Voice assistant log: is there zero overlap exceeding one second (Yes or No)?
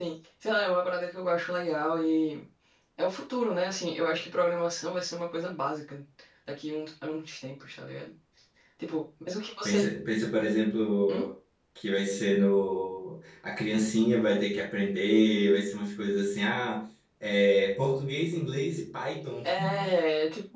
Yes